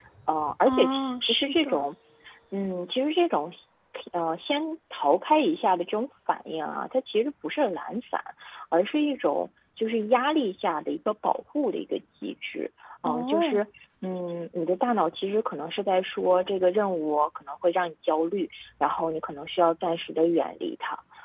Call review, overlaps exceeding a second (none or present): present